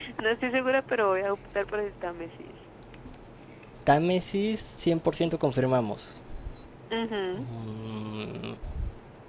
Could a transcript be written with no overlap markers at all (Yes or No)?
Yes